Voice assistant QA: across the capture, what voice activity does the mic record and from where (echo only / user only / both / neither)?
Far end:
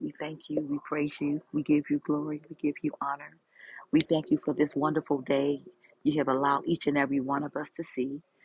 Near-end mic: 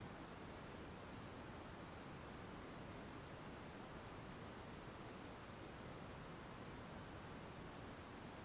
neither